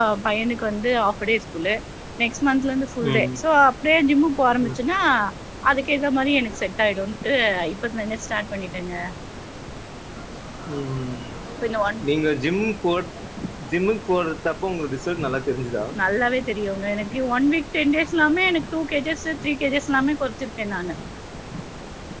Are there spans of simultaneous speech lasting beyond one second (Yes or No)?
No